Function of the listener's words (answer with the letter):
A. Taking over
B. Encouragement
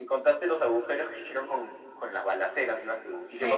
A